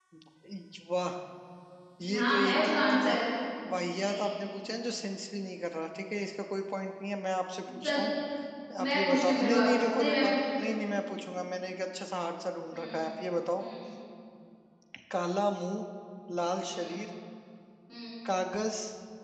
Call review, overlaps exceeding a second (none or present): present